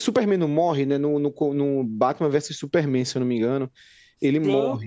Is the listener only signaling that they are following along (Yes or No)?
No